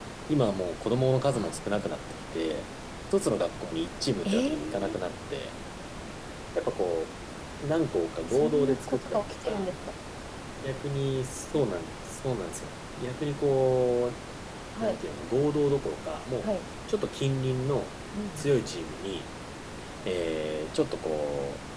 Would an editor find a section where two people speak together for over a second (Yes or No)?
Yes